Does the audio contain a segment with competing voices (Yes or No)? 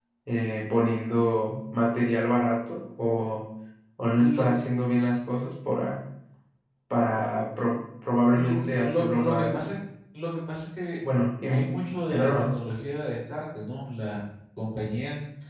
Yes